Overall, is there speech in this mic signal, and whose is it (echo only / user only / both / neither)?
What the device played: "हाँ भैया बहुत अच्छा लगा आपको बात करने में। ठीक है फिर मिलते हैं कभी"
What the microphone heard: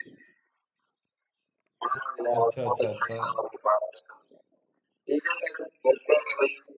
both